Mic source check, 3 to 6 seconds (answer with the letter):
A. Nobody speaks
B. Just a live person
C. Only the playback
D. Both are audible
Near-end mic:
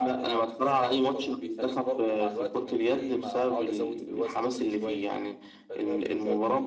C